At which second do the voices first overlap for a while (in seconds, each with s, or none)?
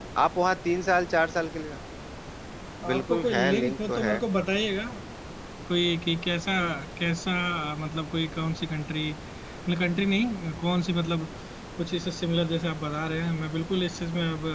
2.9 s